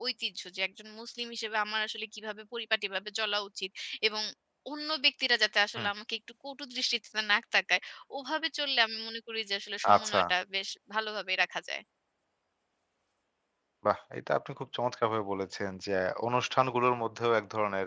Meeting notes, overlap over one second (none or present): none